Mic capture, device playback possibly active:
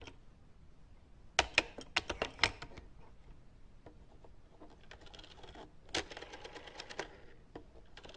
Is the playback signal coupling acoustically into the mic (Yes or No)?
No